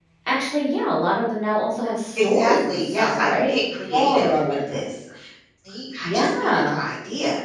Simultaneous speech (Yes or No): Yes